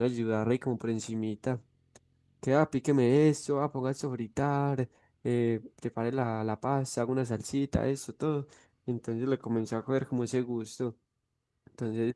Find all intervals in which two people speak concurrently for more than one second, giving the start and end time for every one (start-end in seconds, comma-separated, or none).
none